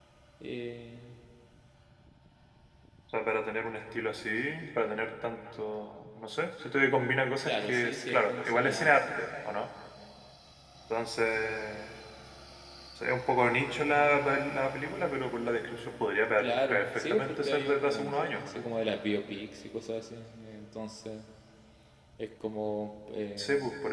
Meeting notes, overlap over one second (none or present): present